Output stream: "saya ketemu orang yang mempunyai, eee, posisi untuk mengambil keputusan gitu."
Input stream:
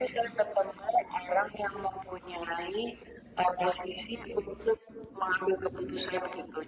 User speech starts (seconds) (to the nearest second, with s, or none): none